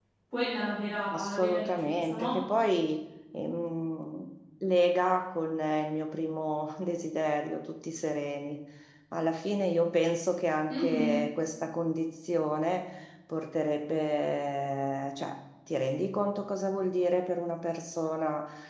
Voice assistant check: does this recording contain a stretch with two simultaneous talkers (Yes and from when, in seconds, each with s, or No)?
Yes, from 1.1 s